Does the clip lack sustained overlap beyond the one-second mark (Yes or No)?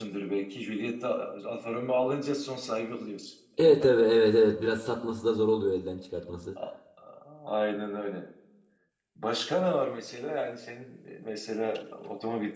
Yes